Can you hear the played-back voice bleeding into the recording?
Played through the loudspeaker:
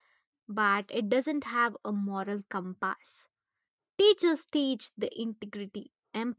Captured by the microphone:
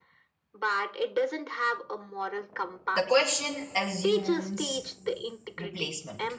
Yes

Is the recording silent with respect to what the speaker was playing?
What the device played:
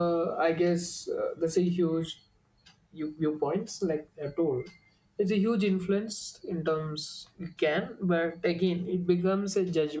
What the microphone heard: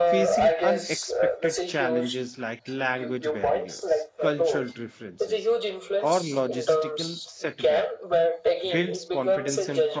No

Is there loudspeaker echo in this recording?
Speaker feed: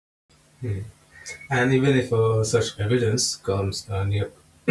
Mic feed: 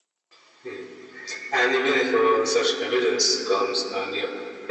Yes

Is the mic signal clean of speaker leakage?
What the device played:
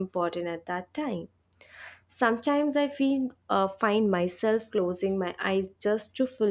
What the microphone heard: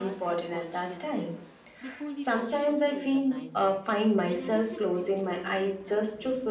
No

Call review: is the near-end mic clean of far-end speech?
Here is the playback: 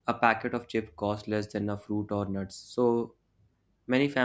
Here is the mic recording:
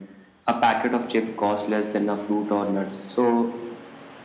No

